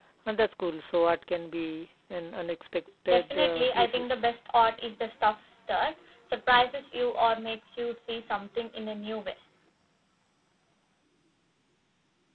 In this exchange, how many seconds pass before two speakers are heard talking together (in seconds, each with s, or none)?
3.1 s